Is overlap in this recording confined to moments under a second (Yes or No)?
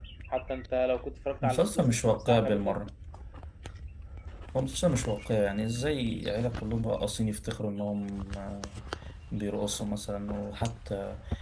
No